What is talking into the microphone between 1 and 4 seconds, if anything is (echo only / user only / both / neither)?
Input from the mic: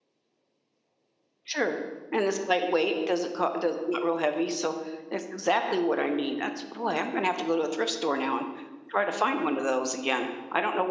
user only